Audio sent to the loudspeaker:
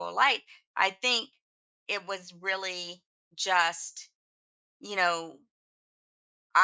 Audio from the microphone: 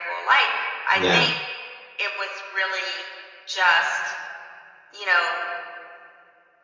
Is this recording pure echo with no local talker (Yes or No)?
No